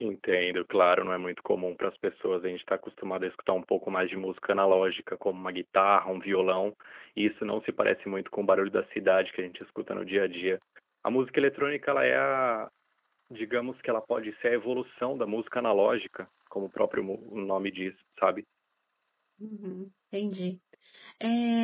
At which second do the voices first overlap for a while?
none

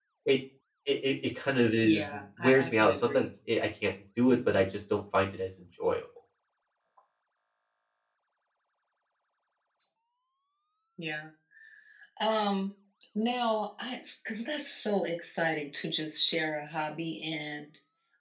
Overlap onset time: 1.8 s

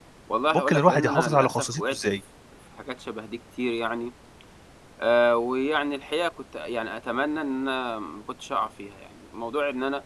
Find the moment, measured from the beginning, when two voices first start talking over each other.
0.5 s

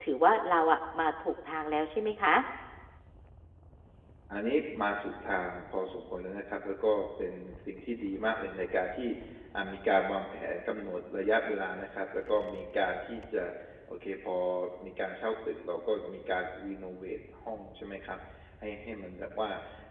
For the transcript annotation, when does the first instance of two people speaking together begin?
none

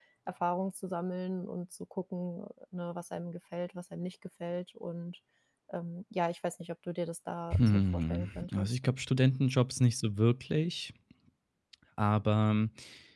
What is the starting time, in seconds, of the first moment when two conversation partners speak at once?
7.5 s

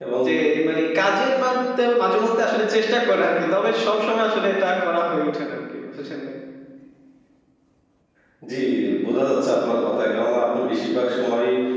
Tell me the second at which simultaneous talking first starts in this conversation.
none

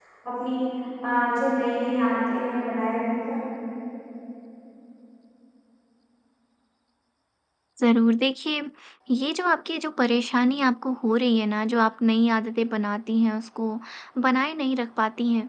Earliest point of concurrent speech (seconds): none

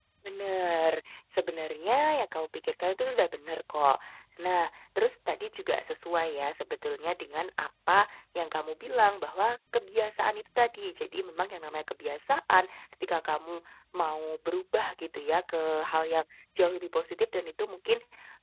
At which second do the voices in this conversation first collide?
none

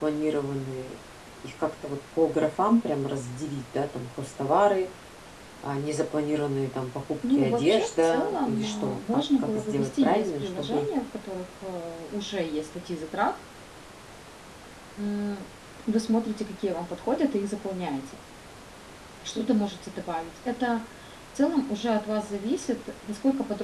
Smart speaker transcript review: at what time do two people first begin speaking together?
7.2 s

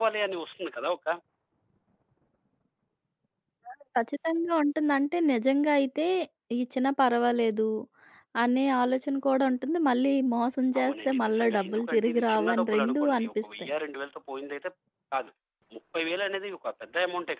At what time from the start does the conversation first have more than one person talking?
10.7 s

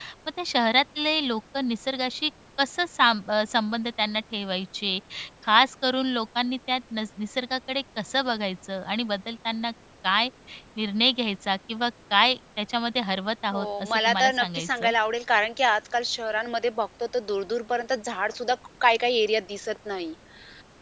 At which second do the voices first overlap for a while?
13.5 s

